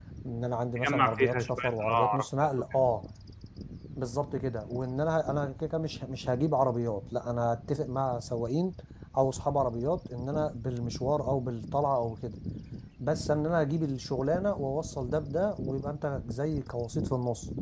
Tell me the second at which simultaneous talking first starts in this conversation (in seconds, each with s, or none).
0.8 s